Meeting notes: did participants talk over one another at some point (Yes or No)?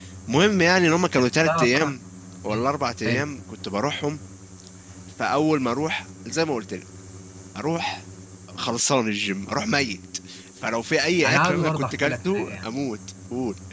Yes